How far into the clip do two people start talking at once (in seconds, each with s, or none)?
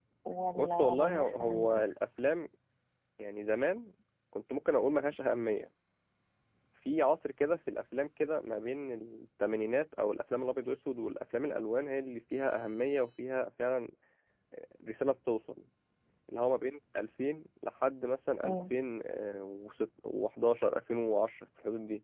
0.6 s